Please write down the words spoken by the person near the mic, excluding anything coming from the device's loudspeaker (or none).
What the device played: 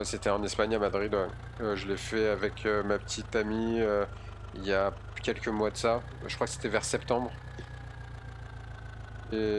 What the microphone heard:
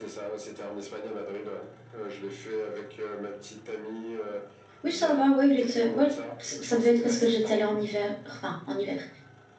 Oui, ça va. Ouais, il était. ouais, c- ça devait être parce que j'étais allée en hiver. Enfin, en hiver.